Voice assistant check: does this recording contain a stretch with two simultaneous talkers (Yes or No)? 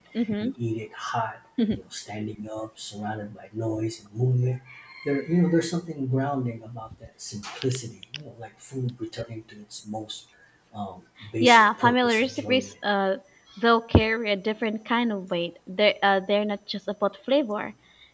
Yes